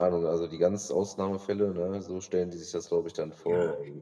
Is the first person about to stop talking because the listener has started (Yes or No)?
Yes